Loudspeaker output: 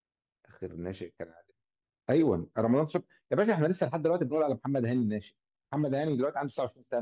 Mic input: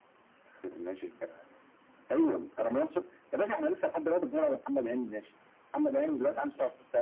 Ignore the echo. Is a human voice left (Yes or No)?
Yes